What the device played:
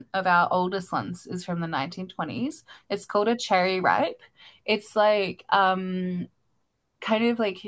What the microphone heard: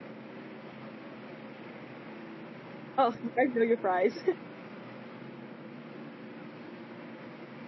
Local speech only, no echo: Oh, you guys know your fries.

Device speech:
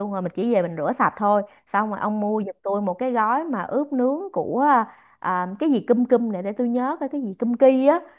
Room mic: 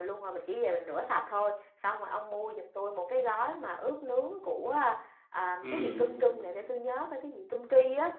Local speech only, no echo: ừ.

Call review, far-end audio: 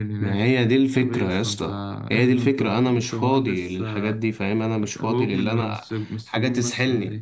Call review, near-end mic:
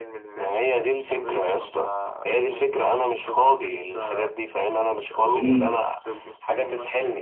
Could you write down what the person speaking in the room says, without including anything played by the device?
مم.

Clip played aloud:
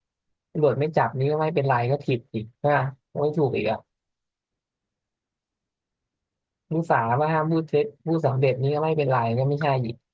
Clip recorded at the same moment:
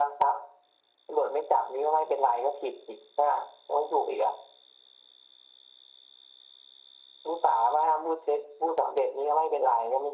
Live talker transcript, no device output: none

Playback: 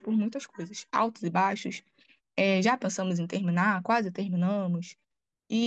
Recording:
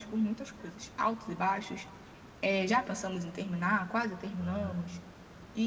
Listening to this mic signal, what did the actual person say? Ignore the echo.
Ah,

